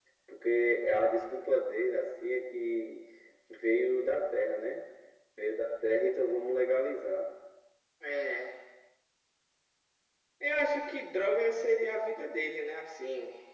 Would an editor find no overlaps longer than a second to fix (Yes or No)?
Yes